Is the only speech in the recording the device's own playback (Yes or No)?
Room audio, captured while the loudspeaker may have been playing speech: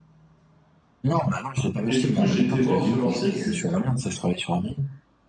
No